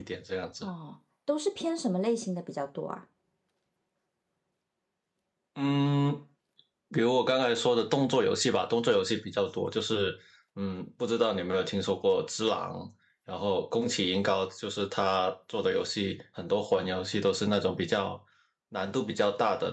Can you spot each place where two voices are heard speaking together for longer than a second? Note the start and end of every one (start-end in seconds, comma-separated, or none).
none